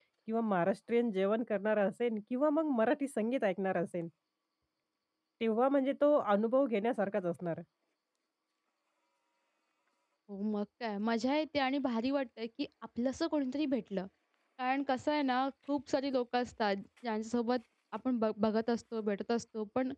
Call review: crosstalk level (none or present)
none